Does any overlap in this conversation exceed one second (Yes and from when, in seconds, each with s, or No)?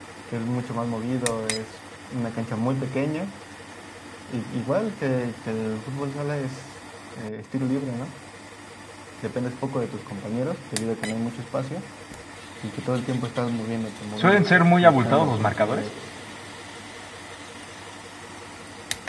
Yes, from 14.2 s